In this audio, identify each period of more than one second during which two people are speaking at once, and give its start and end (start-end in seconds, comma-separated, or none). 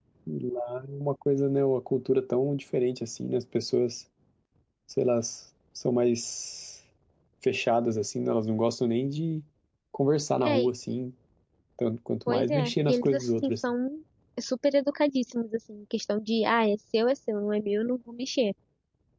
12.3-13.5